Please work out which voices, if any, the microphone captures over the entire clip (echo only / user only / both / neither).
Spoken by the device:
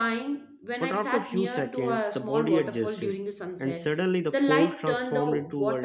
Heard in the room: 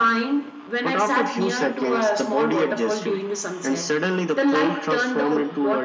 echo only